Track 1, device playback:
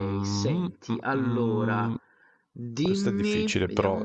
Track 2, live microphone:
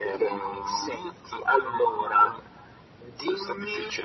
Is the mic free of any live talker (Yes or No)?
Yes